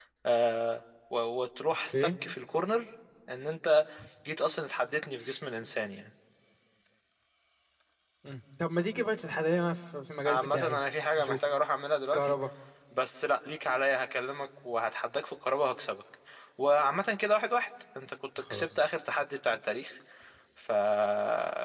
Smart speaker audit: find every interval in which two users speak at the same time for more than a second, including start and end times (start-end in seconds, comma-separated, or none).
none